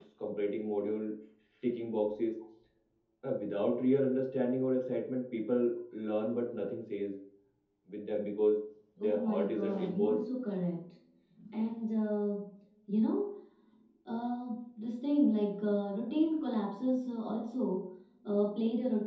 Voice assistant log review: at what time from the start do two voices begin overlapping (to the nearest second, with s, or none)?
9 s